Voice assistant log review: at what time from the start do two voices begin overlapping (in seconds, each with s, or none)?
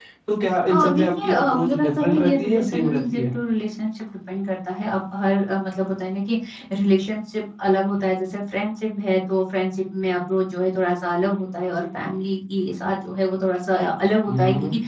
0.7 s